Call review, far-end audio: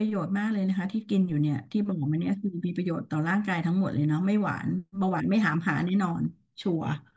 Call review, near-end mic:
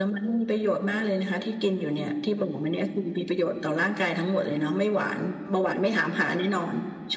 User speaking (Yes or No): No